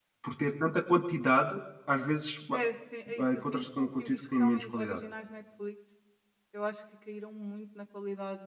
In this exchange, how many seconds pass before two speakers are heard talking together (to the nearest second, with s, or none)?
3 s